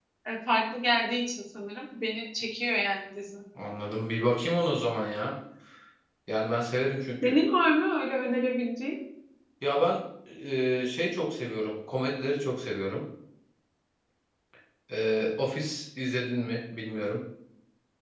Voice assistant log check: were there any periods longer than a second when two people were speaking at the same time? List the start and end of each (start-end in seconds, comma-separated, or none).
none